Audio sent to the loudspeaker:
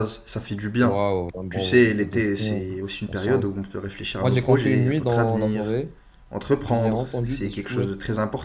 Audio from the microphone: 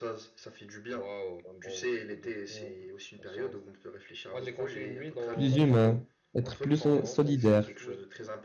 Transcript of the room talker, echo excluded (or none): plus humain, être plus so- solidaire.